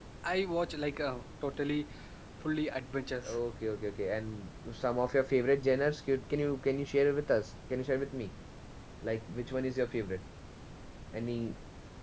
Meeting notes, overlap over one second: none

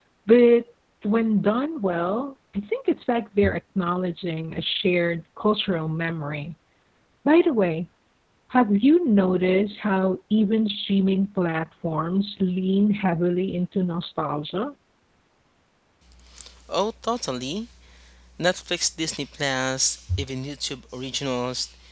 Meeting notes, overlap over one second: none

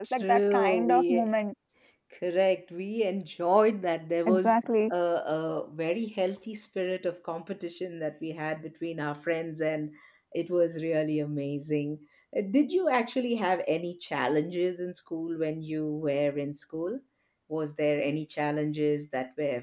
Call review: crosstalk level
present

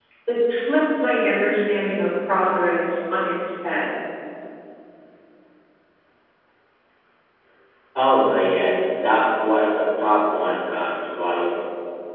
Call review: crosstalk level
none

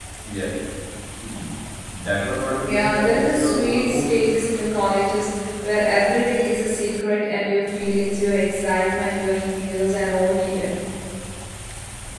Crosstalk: present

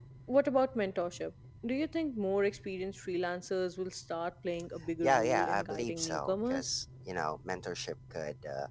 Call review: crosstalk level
present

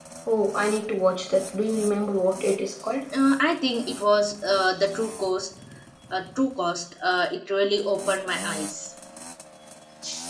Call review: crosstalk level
none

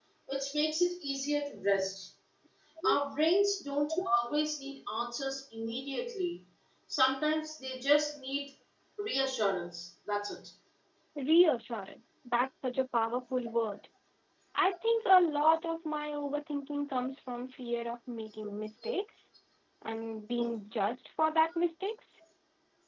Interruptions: none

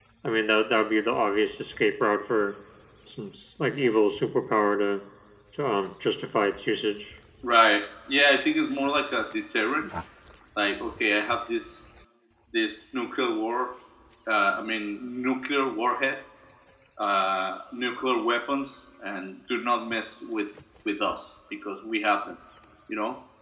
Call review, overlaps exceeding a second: none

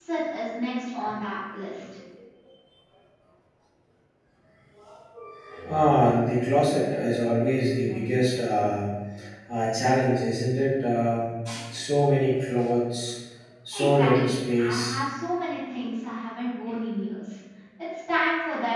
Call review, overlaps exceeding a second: present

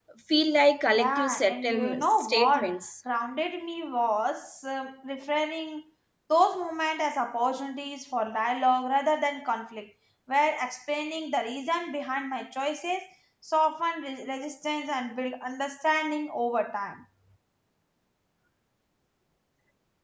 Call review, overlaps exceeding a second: present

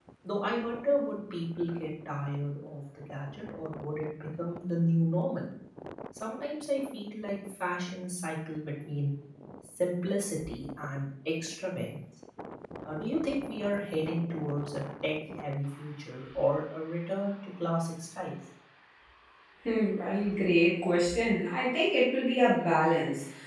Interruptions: none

